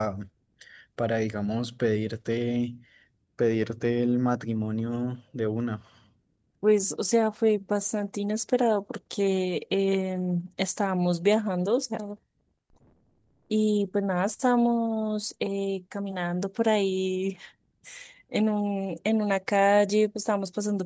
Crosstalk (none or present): none